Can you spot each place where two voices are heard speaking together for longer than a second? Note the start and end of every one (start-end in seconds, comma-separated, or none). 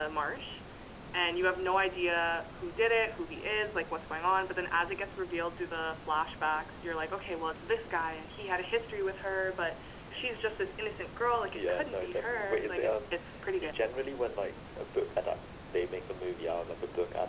11.5-13.1